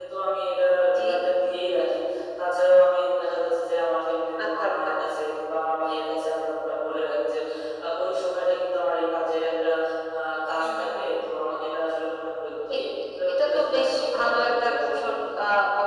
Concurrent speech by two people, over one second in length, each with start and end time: 13.3-15.0

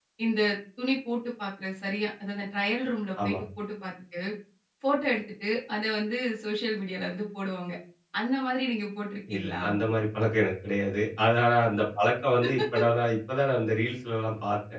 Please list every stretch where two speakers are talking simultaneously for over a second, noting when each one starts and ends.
none

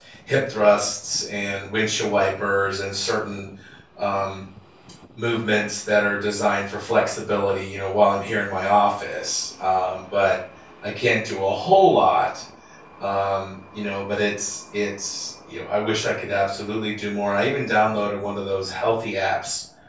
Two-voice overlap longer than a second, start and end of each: none

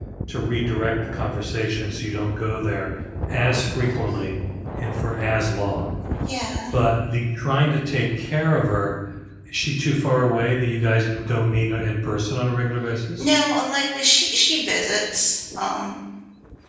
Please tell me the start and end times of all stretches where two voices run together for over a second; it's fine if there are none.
none

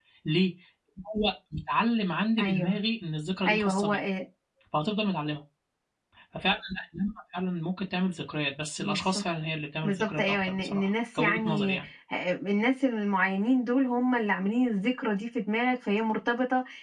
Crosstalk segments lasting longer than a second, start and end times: 9.8-11.8

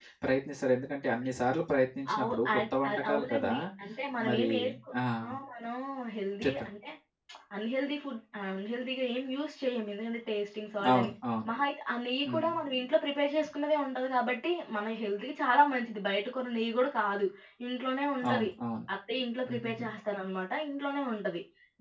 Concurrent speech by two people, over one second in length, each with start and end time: 2.1-3.5

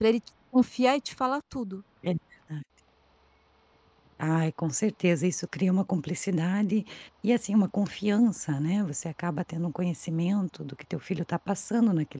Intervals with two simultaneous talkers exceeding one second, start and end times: none

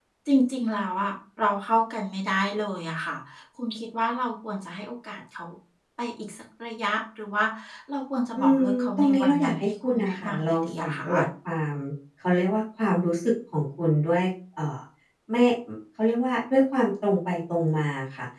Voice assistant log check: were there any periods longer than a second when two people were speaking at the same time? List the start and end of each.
8.3-11.0

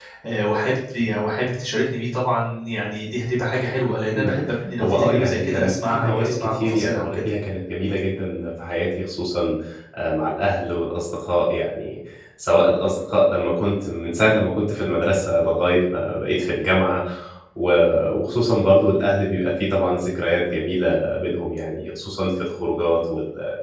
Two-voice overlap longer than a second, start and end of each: 4.8-7.2

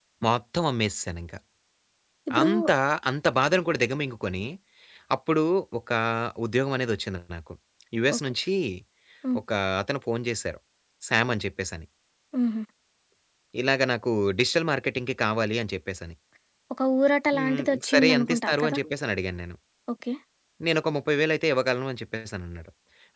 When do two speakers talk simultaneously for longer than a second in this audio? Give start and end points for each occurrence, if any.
17.3-18.8

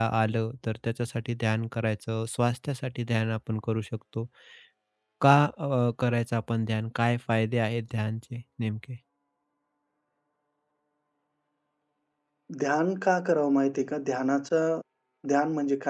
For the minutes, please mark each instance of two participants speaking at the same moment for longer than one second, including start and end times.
none

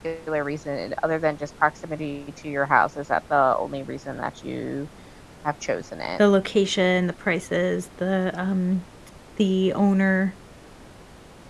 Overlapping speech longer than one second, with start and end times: none

